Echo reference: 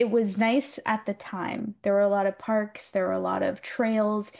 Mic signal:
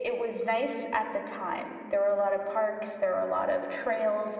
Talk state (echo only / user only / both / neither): echo only